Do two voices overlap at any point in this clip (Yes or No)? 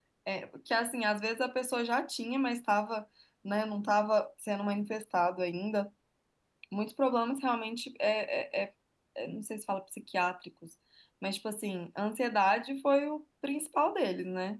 No